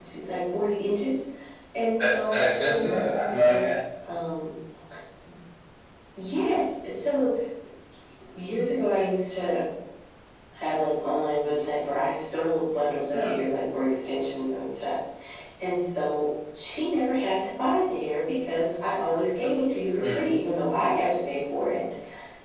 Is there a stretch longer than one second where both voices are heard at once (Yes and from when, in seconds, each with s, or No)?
Yes, from 2.2 s